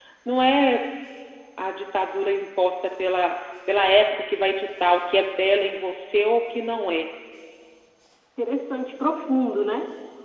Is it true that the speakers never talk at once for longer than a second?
Yes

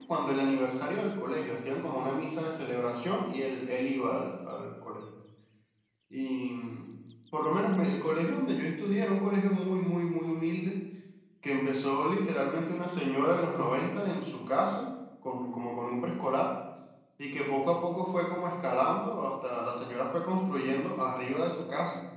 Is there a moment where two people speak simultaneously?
No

